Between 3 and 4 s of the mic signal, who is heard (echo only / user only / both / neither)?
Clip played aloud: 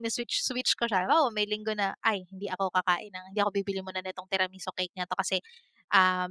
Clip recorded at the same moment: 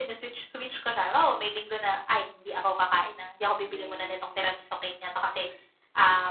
both